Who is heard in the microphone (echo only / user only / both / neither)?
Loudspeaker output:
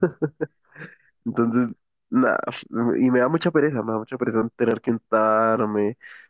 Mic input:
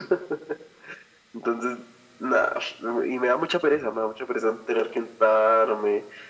echo only